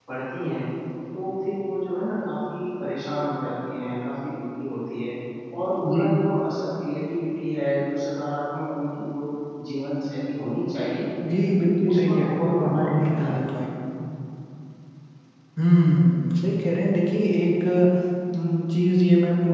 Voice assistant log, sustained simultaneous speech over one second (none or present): present